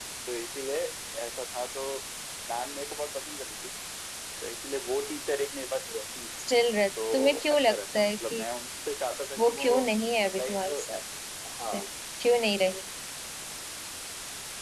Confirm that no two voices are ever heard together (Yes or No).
No